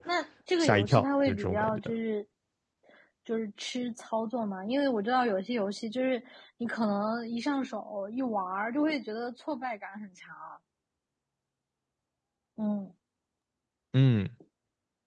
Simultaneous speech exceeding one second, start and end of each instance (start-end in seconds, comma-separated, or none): 0.6-1.8